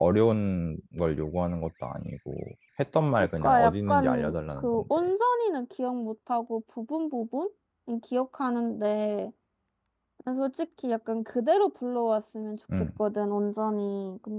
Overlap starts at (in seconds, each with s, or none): 3.4 s